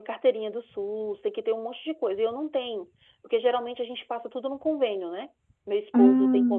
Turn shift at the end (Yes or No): No